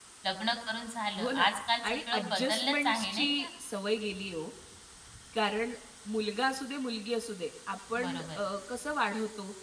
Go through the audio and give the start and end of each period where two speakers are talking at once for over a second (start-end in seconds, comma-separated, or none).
1.9-3.5